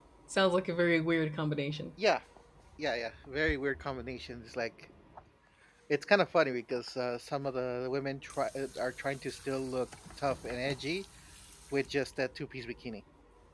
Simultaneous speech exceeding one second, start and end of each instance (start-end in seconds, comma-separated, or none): none